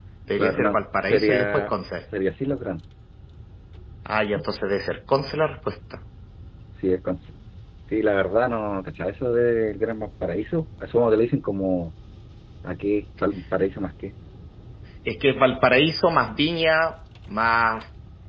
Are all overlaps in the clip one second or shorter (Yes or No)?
No